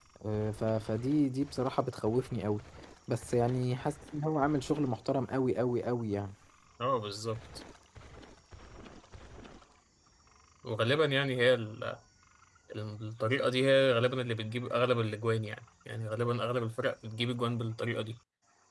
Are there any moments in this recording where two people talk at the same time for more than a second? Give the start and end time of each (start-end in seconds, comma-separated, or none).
none